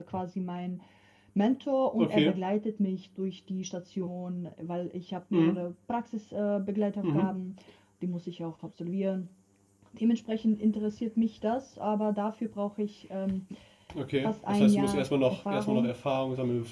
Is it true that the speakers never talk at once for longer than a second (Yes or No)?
No